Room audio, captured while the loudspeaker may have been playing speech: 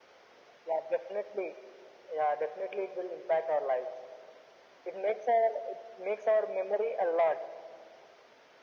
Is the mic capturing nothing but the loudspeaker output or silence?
Yes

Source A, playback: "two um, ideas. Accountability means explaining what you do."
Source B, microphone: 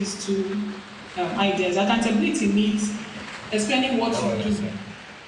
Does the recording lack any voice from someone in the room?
No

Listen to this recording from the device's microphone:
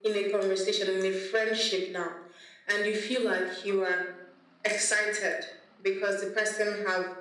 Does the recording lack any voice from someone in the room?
Yes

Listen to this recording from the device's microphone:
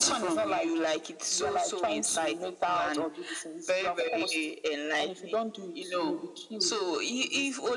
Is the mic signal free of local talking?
Yes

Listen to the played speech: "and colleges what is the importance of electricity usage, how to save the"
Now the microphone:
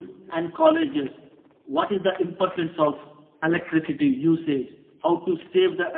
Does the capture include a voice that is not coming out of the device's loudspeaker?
No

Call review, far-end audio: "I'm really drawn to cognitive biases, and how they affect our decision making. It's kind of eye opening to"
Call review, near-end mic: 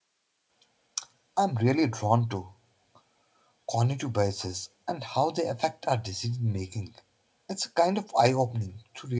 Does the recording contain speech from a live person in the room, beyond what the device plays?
No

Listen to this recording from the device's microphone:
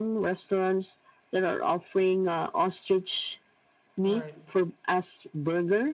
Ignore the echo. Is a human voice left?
Yes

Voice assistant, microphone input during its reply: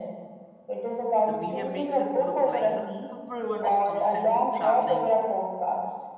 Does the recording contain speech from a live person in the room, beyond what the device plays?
Yes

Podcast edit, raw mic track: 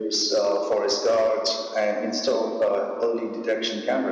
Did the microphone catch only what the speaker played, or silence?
Yes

